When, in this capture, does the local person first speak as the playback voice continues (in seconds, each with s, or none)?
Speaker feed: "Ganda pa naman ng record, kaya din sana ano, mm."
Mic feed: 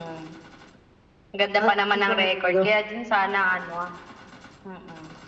1.6 s